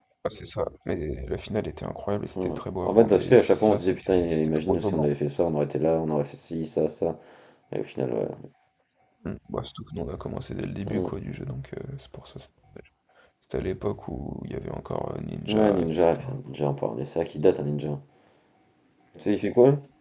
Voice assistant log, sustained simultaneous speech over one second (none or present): present